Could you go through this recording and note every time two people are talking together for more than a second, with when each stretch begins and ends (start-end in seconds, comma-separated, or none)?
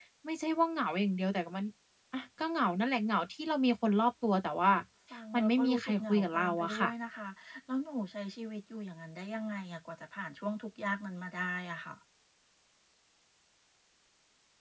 5.3-6.9